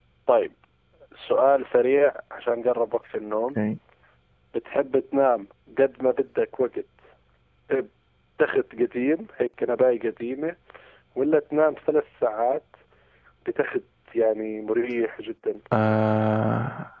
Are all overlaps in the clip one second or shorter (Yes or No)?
Yes